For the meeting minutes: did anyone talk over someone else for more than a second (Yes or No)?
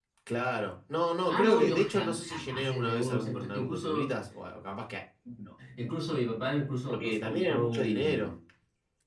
Yes